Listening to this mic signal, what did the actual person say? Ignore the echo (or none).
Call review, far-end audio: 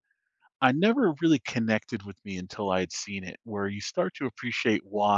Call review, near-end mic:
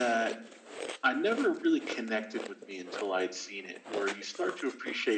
none